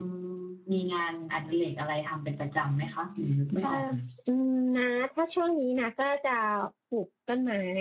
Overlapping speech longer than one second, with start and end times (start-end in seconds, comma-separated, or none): none